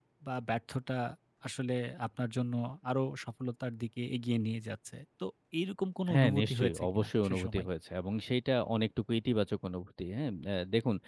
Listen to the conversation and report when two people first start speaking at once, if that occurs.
6.1 s

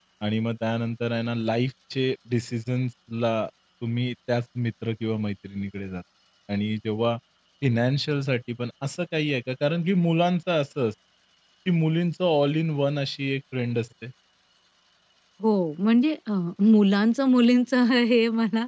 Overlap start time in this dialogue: none

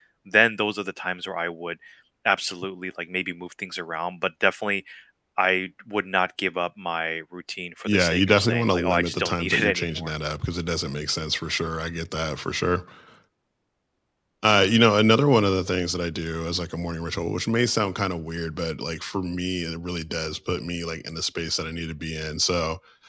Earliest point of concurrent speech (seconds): 7.8 s

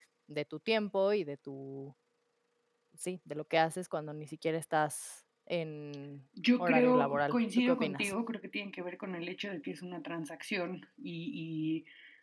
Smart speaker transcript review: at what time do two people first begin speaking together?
6.6 s

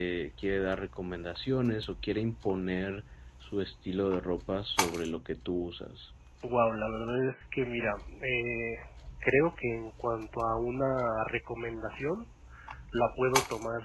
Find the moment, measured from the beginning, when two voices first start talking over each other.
none

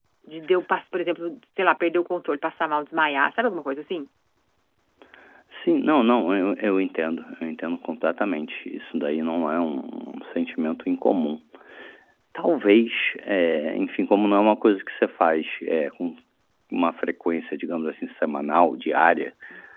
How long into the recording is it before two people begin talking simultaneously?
none

